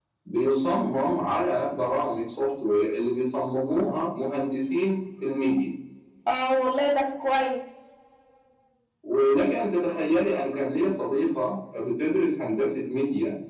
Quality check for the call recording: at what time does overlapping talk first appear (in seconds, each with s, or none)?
none